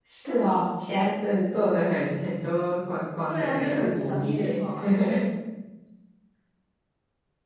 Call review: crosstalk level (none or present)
present